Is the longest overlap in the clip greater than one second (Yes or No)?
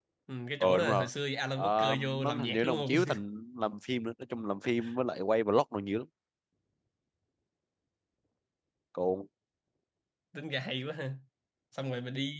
Yes